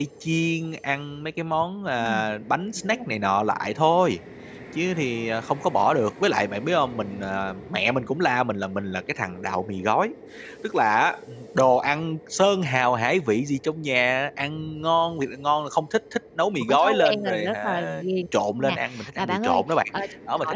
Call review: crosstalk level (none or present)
present